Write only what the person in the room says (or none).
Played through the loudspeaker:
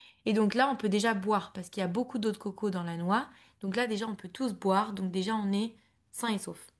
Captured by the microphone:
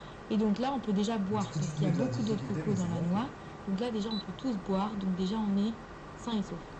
Du coup, tu te mets de la difficulté, mais c'est bon, ok.